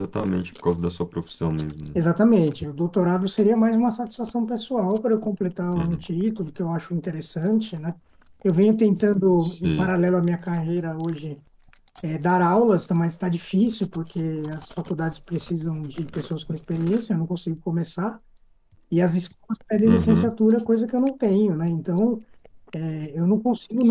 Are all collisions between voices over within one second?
Yes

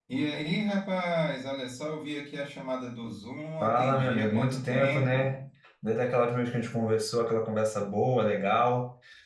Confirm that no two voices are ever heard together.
No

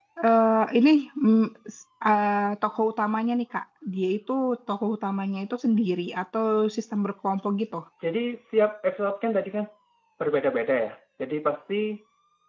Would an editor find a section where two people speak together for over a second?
No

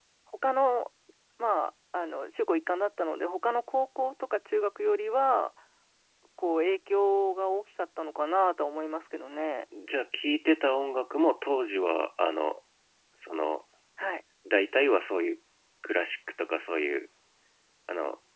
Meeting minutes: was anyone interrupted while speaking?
No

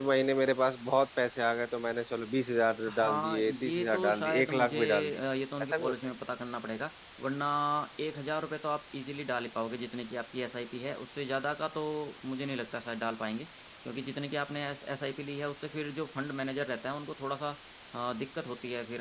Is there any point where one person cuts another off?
Yes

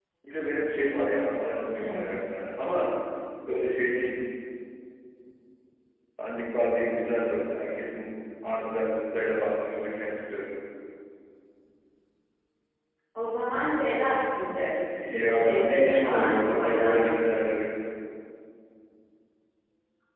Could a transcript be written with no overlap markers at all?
No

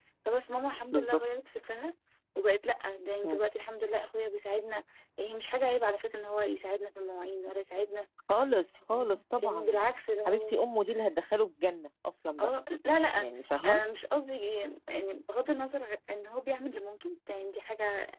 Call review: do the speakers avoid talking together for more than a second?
Yes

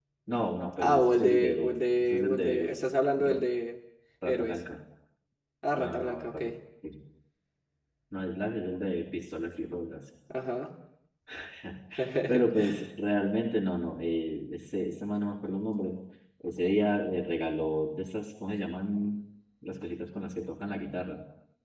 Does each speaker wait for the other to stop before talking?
No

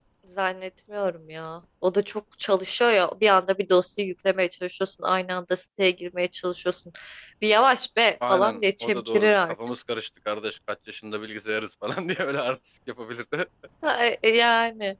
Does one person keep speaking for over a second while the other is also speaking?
Yes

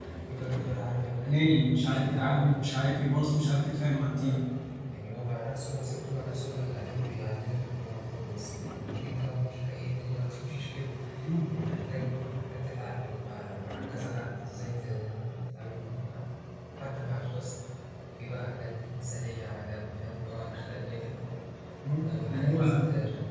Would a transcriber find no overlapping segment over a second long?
No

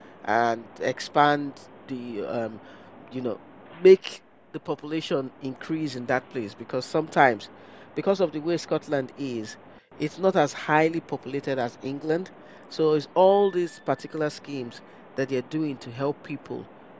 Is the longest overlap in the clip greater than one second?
No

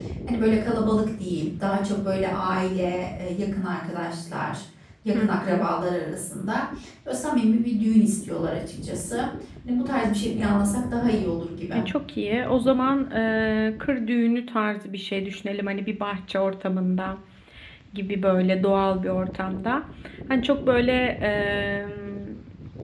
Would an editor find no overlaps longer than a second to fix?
Yes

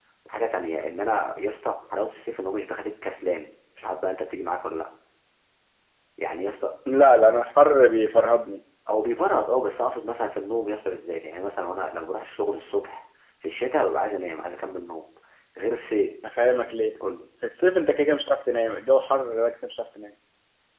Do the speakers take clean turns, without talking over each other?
Yes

